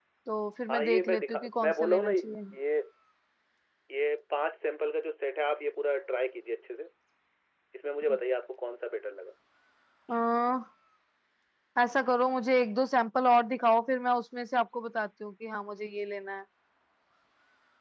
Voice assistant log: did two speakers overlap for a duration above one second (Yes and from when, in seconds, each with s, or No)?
Yes, from 0.7 s